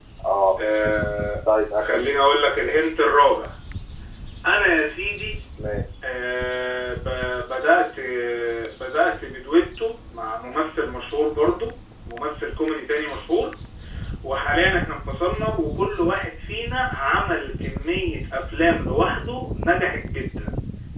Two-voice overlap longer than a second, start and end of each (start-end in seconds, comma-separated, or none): none